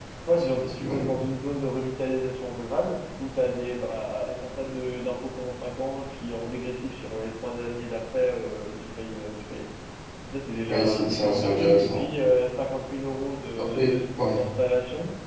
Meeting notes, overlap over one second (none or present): present